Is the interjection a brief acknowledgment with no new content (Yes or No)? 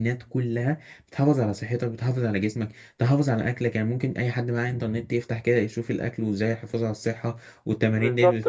No